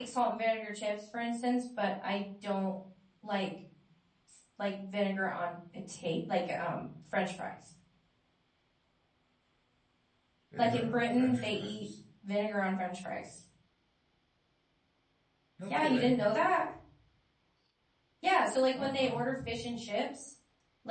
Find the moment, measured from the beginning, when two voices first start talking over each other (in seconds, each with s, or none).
10.6 s